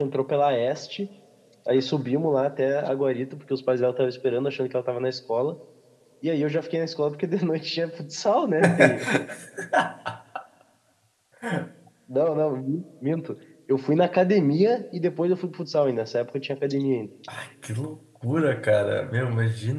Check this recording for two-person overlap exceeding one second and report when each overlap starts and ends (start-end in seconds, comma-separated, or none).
none